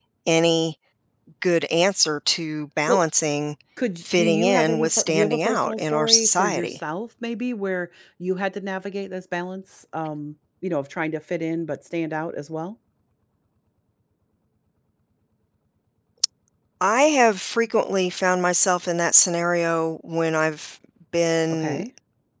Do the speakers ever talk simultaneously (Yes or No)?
Yes